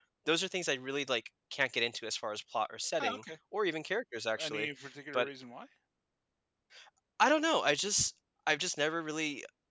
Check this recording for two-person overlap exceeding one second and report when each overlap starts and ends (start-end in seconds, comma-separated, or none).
none